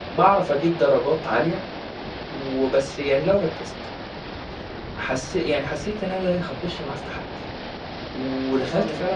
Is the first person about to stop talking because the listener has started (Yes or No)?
Yes